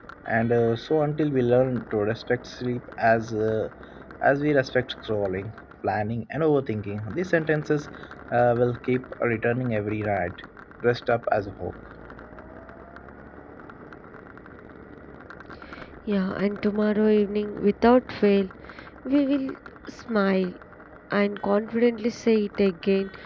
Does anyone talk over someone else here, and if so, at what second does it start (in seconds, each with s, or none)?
none